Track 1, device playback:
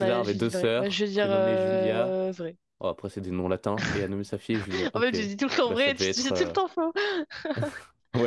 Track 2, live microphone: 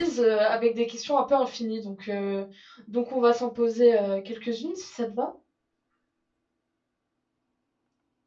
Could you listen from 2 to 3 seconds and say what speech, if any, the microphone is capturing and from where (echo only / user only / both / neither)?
user only